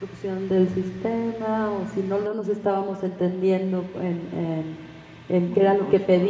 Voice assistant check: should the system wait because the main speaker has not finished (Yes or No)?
Yes